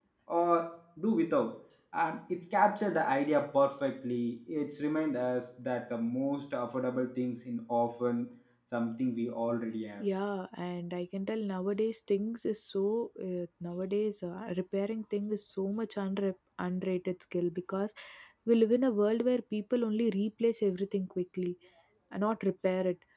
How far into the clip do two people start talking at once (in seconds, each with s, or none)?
none